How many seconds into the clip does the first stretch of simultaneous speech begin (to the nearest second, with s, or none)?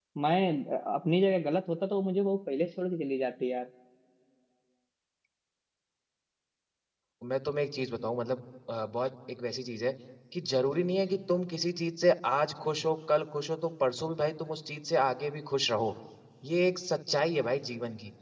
none